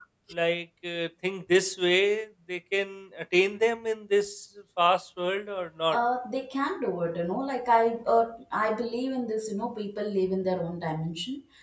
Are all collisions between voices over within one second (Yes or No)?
Yes